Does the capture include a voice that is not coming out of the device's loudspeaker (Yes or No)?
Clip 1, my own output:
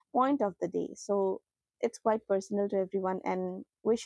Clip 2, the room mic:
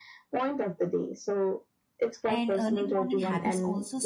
Yes